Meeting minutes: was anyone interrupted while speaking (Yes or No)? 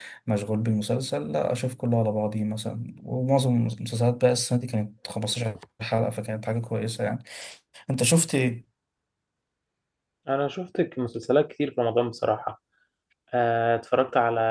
No